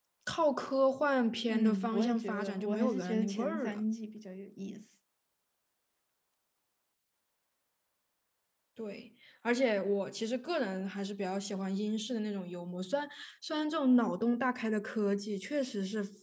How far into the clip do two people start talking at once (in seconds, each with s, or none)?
1.5 s